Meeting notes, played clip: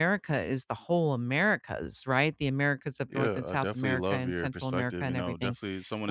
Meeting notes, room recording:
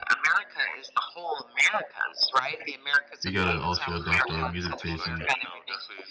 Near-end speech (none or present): present